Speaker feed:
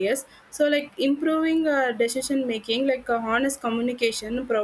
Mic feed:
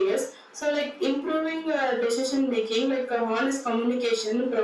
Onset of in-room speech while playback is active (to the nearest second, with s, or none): none